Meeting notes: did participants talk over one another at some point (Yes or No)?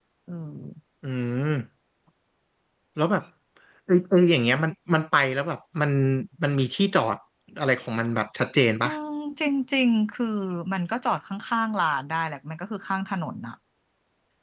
No